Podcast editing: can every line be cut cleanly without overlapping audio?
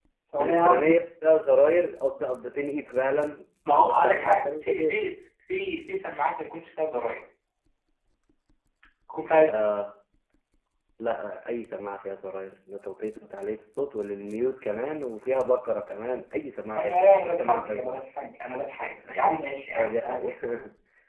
No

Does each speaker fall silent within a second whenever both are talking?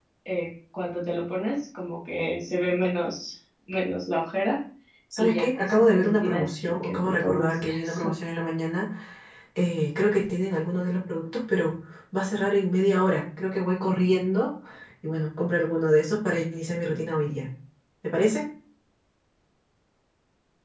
No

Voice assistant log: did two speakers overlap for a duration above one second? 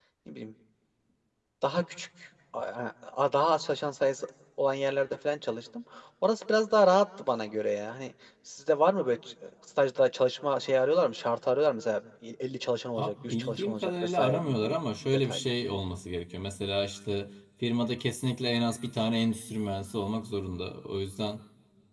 Yes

